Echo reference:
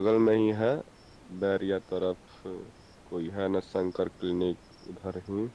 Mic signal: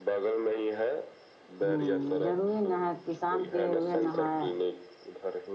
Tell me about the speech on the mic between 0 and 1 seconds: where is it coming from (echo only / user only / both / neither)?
echo only